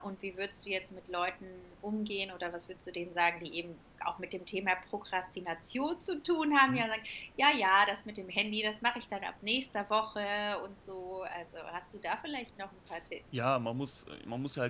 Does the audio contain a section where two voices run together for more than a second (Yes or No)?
No